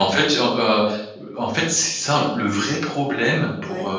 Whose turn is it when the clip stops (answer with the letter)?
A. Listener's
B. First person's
B